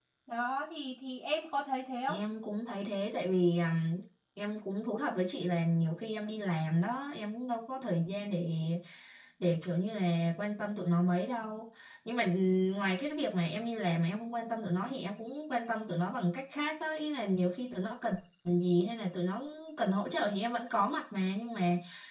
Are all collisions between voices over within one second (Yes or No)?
Yes